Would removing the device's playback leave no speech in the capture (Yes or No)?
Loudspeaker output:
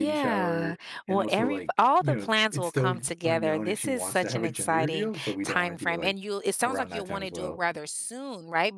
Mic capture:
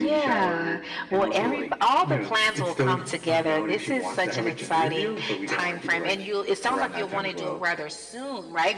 Yes